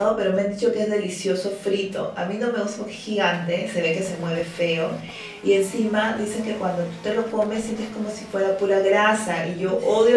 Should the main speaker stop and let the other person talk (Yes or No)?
No